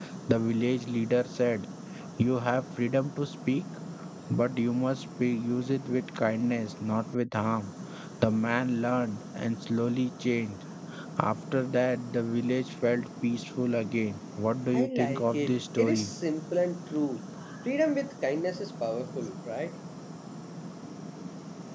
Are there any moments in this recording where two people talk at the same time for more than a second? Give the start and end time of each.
14.7-16.1

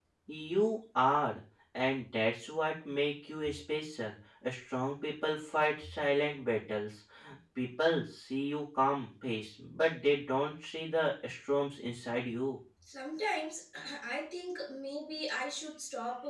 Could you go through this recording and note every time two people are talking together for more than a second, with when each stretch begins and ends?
none

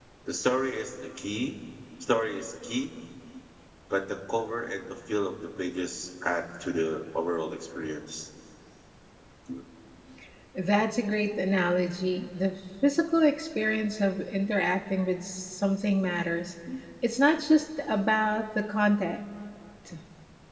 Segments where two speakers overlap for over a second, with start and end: none

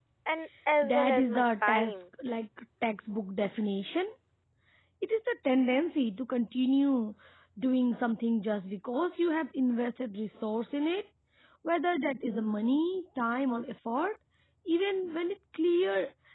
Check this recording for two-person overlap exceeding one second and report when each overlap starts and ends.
0.8-2.0

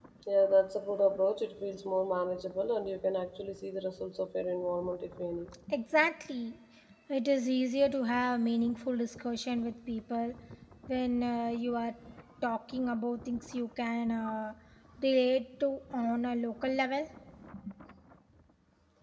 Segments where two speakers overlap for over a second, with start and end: none

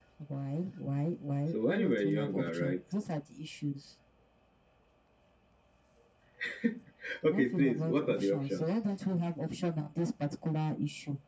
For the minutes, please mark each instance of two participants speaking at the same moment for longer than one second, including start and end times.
1.5-2.8, 7.3-8.7

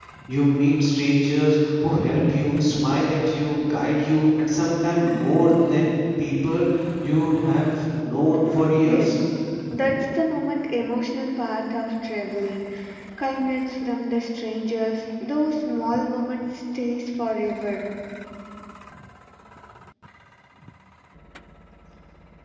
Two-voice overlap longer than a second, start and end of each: none

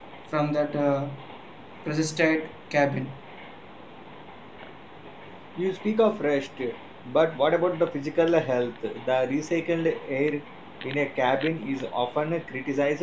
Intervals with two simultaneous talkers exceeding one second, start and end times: none

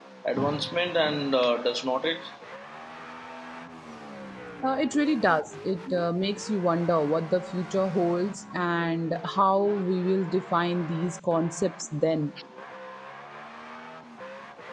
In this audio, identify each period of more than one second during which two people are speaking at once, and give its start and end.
none

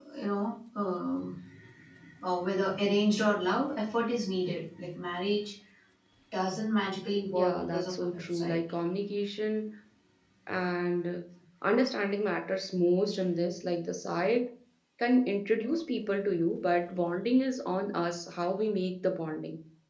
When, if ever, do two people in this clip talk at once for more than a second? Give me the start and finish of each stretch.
7.4-8.6

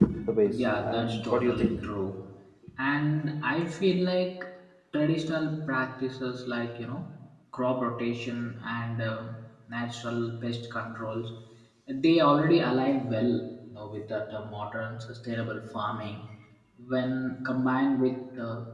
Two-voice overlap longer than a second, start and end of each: 0.5-1.8

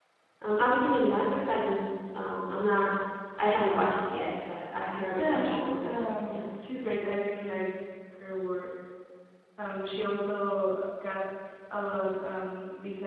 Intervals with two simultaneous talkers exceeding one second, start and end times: 5.2-6.4

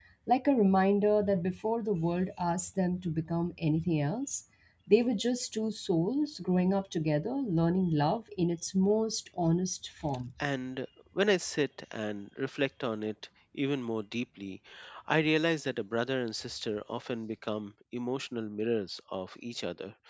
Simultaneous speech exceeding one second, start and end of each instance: none

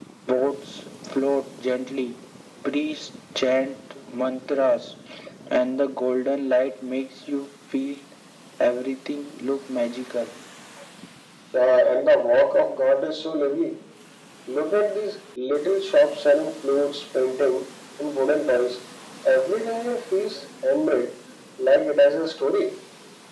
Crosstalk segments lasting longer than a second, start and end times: none

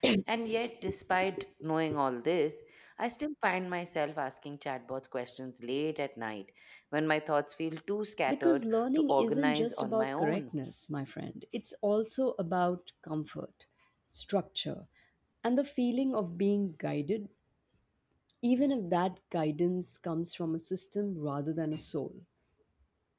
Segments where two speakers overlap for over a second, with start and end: 8.3-10.4

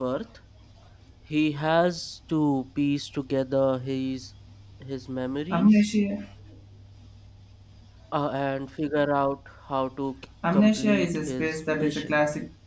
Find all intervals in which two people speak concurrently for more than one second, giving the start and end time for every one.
10.5-12.1

